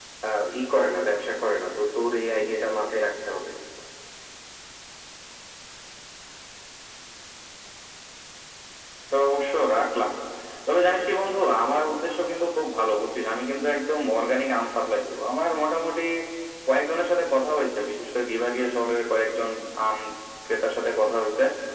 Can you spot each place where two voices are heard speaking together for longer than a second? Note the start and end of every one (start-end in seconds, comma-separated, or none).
none